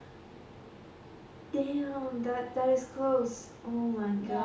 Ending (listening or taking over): taking over